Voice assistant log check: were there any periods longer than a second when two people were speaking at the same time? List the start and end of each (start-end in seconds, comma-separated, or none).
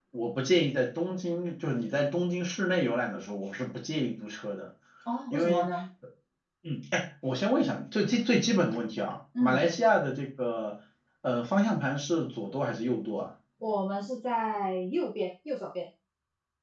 none